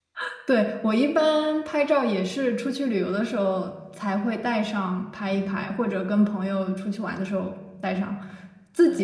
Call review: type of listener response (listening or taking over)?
listening